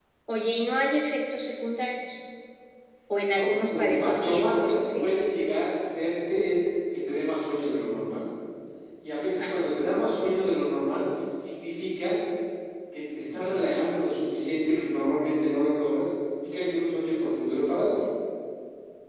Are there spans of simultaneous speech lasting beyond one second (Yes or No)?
Yes